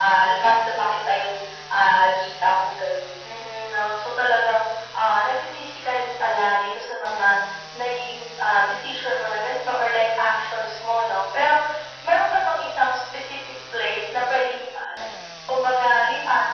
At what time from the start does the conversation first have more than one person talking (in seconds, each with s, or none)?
none